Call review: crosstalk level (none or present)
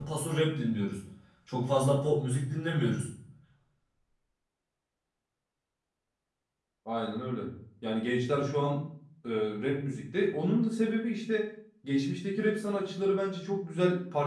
none